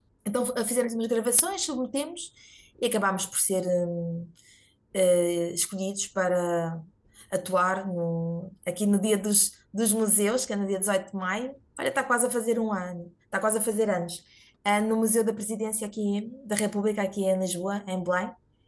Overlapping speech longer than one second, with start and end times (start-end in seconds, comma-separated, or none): none